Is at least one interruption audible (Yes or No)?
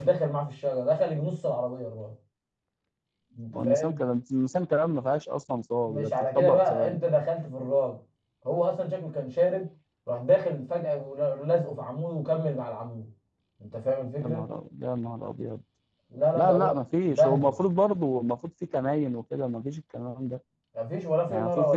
Yes